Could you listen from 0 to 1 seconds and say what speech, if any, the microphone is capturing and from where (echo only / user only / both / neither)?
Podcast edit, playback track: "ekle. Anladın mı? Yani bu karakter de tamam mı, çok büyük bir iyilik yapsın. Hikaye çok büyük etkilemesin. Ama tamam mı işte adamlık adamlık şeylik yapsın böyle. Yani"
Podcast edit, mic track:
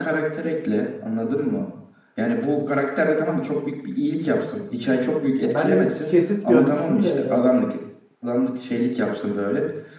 echo only